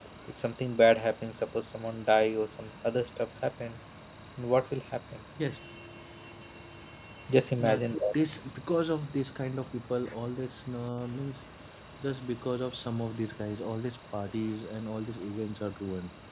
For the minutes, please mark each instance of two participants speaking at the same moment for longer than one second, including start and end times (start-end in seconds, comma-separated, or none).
none